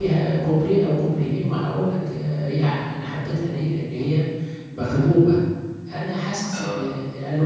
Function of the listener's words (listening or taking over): listening